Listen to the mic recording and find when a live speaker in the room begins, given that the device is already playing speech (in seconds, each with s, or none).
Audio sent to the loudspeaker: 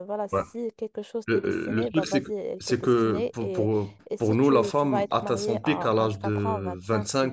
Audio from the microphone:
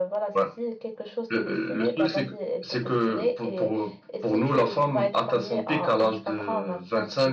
none